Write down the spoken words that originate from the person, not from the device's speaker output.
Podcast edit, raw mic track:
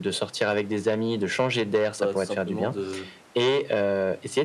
bah, tout simplement de

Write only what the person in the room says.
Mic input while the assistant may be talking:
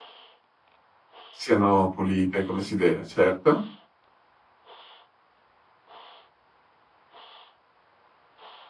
Siano pulite come si deve, certo.

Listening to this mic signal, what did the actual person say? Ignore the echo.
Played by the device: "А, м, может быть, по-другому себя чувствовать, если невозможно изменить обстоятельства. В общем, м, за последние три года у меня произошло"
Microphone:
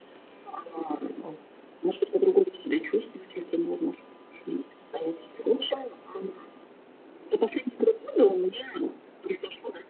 Вот.

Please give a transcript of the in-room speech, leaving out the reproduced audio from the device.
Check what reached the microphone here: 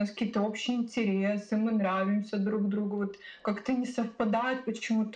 none

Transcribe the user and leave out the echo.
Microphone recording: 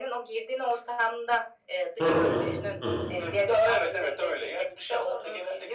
Hı hı. Hı hı.

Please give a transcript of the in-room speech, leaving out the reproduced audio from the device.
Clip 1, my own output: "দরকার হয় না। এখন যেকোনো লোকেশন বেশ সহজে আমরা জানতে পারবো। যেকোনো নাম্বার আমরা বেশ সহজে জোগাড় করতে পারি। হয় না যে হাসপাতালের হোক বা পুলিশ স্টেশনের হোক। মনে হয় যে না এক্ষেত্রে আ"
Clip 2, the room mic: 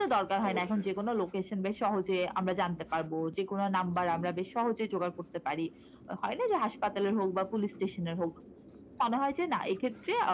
অবশ্যই।

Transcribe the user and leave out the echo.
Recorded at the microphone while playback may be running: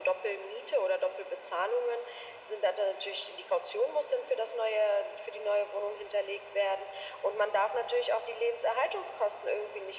none

